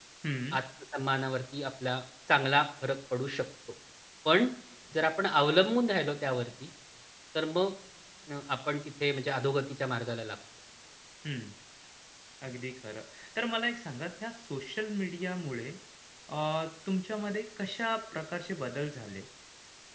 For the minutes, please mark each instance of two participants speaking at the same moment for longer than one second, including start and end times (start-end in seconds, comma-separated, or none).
none